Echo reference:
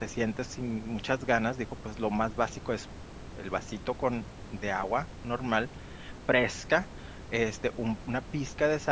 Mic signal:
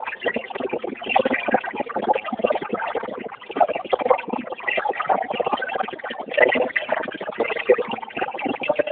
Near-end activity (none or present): none